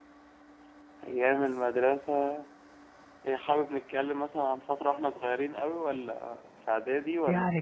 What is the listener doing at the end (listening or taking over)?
taking over